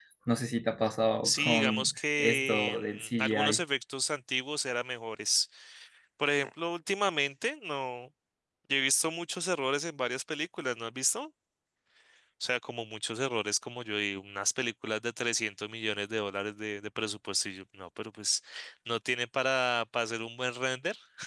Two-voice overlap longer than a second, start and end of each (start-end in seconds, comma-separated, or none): 1.2-3.6